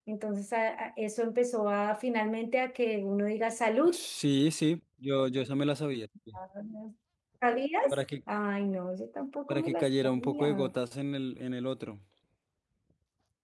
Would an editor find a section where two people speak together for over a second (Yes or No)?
Yes